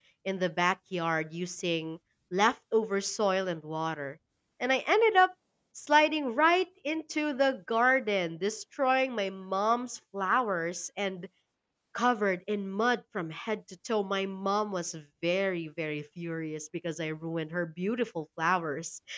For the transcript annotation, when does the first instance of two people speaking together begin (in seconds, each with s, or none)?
none